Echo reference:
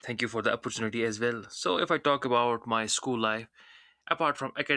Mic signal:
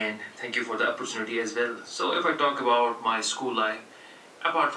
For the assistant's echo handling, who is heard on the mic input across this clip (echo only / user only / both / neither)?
echo only